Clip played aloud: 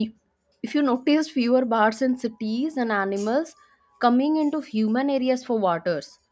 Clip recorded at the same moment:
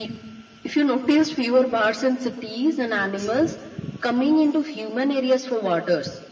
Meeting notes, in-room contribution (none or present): none